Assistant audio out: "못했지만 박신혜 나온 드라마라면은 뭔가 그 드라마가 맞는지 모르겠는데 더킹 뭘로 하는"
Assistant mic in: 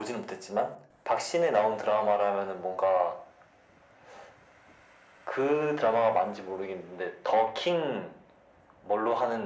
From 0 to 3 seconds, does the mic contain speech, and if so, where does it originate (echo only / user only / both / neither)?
echo only